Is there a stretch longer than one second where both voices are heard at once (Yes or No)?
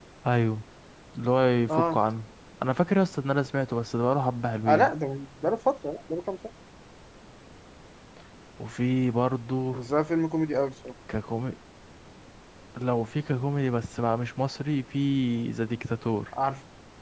No